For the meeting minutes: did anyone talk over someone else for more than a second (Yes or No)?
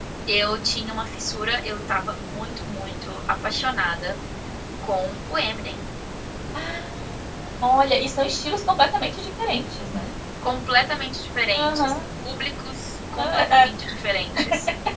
No